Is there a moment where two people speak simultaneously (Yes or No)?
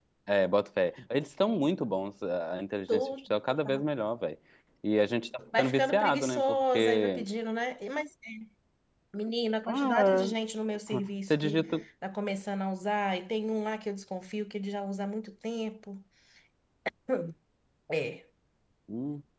Yes